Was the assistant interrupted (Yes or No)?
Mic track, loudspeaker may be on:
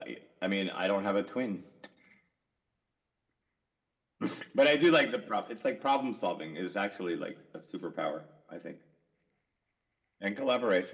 No